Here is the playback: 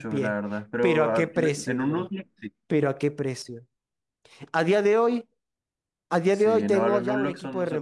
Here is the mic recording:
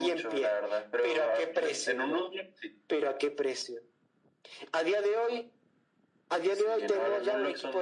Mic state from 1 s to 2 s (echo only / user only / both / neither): echo only